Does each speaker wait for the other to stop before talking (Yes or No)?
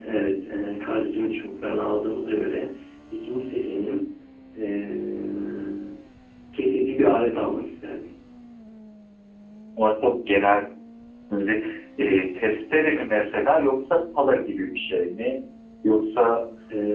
Yes